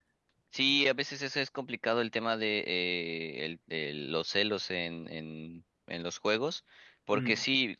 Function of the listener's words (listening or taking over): listening